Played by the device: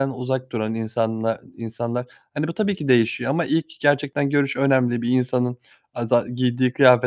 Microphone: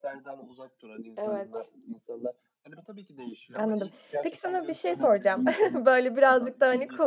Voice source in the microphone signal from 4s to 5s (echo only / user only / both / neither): both